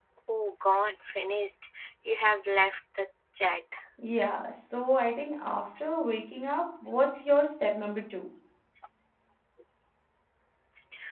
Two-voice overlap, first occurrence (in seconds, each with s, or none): none